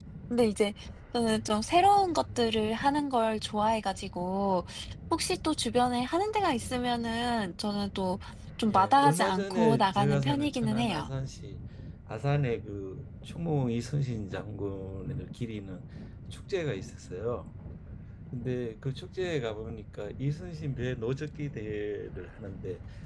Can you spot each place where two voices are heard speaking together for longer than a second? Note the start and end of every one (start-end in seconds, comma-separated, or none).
8.7-11.1